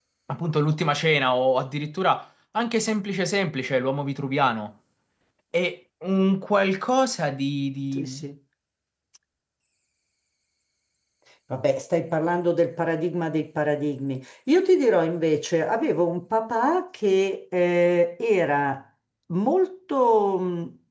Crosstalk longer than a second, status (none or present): none